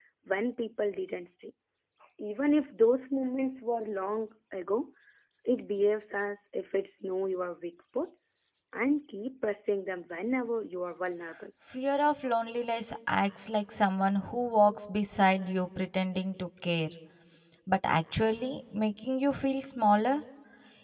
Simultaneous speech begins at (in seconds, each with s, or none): none